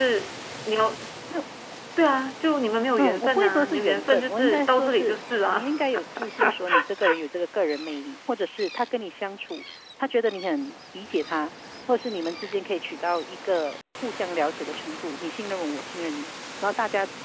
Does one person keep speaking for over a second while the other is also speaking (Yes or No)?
Yes